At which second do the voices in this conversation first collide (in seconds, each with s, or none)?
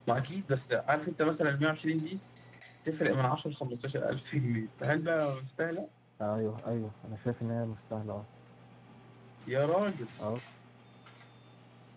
none